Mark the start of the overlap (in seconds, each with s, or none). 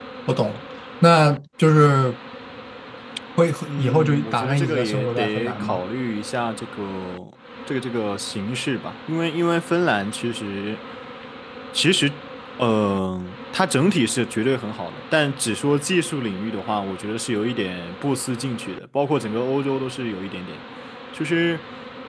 3.7 s